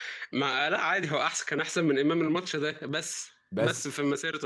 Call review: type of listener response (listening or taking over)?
listening